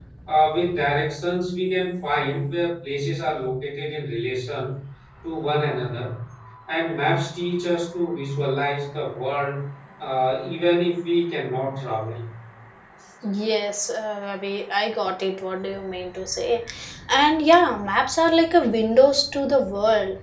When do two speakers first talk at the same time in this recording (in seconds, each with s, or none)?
none